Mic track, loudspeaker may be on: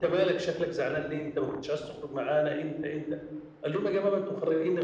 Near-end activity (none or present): none